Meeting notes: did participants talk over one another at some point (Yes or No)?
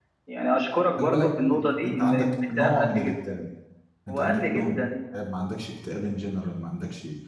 Yes